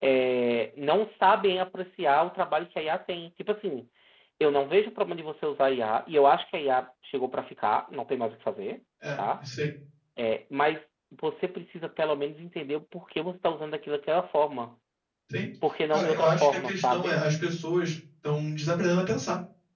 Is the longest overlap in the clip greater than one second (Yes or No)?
Yes